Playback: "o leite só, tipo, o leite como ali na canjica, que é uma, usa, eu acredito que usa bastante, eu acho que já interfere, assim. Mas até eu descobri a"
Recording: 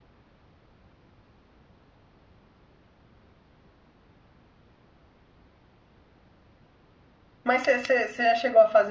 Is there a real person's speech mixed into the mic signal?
Yes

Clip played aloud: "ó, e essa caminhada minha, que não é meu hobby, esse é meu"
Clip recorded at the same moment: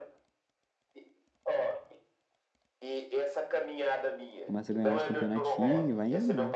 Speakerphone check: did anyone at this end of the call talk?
Yes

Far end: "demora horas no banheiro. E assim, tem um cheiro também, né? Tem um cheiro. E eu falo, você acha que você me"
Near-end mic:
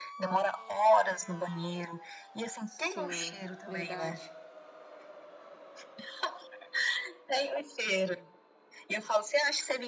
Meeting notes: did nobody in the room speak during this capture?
No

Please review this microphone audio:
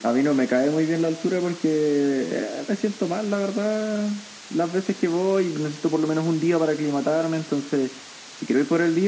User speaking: No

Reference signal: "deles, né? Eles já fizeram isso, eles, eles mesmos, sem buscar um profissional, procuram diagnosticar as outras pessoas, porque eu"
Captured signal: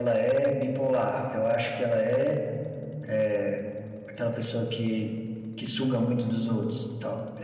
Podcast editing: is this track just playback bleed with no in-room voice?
No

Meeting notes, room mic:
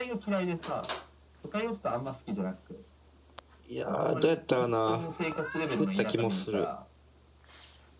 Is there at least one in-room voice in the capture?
Yes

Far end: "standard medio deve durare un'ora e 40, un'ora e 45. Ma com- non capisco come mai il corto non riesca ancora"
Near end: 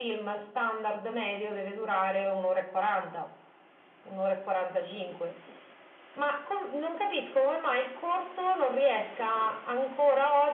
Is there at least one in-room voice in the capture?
No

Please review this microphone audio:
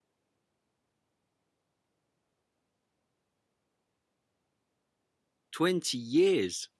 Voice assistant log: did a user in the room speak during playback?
Yes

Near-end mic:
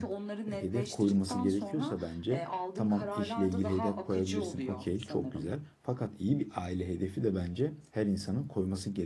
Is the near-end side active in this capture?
Yes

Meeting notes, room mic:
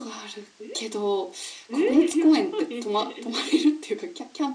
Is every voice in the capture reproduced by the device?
Yes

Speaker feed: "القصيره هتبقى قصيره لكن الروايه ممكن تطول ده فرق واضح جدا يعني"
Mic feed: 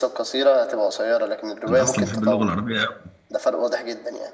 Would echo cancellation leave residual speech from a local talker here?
Yes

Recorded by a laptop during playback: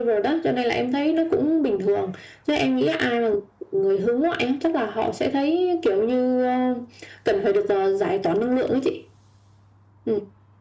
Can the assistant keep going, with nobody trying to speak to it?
Yes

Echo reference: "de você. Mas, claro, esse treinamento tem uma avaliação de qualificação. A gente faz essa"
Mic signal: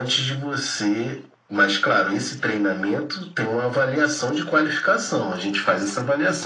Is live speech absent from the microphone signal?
Yes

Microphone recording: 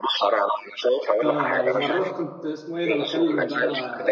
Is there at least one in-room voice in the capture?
Yes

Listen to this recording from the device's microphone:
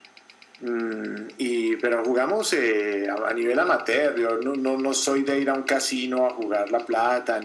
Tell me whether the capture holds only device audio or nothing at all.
Yes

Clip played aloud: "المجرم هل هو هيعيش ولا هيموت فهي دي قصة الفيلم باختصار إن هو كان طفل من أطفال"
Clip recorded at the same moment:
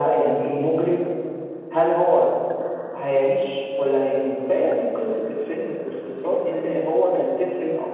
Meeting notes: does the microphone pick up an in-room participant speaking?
No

